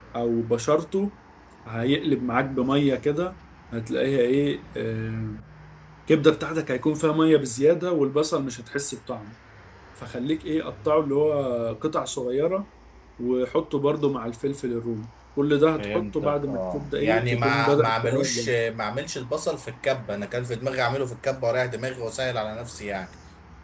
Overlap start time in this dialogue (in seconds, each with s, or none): 15.8 s